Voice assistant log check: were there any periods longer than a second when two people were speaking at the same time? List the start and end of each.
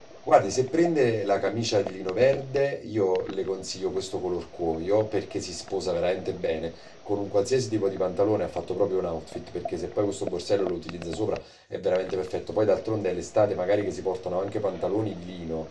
none

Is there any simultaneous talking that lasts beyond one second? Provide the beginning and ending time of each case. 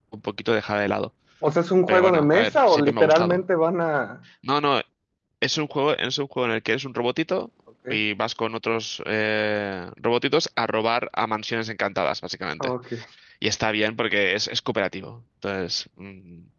1.9-3.4

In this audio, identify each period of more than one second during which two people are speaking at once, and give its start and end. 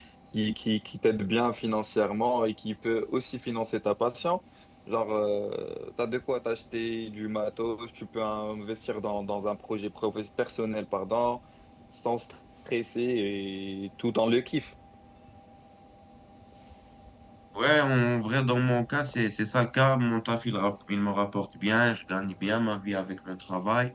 none

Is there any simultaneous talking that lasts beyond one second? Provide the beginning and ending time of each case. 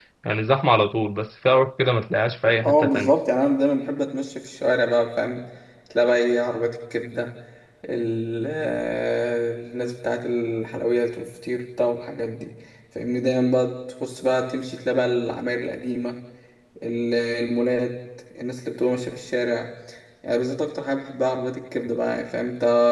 none

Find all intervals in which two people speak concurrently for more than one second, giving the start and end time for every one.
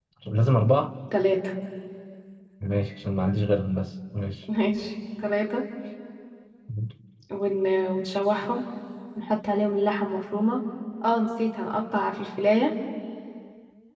none

